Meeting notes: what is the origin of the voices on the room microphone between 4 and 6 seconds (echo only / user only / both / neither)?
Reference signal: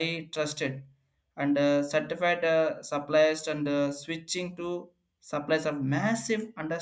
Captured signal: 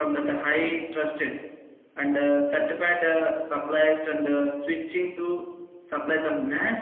echo only